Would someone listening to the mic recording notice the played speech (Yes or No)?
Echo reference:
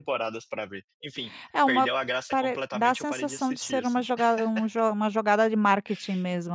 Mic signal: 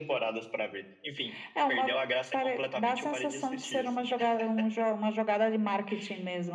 Yes